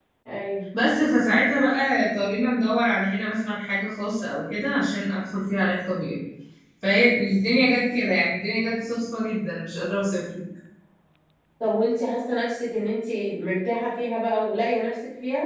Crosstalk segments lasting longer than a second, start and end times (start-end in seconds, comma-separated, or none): none